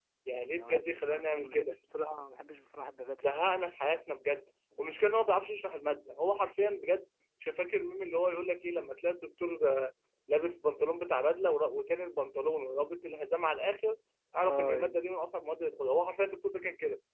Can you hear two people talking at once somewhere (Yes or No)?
Yes